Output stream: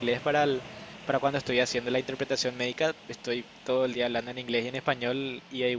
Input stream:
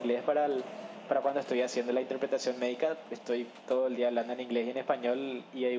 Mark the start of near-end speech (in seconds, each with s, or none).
none